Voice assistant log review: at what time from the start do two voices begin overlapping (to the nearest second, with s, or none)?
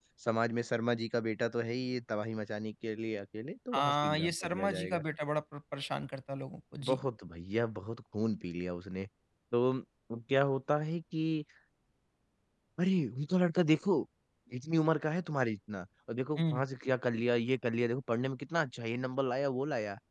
4 s